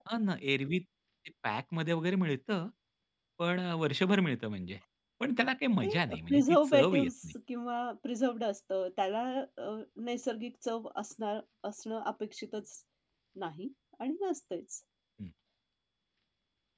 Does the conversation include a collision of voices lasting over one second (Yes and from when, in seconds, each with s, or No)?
Yes, from 5.8 s